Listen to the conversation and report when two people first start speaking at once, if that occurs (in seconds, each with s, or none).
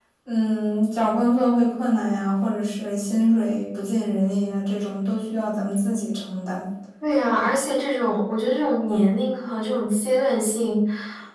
none